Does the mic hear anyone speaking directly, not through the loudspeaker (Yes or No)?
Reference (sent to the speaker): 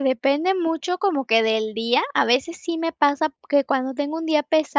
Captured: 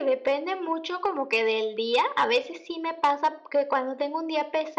No